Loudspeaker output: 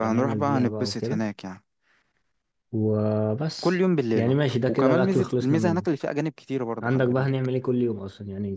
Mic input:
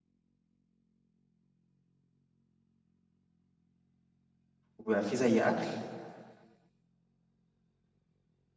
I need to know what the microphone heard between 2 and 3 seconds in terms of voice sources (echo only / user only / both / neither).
neither